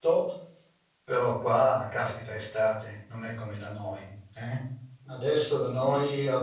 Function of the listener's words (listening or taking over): listening